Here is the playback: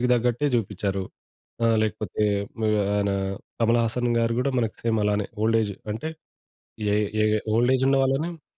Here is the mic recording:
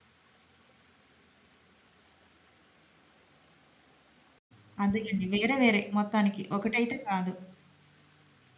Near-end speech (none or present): present